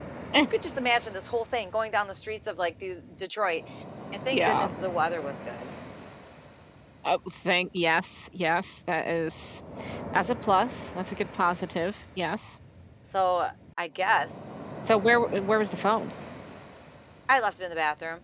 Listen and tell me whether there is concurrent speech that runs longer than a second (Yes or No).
No